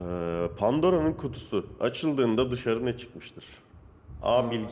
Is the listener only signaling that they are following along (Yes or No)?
Yes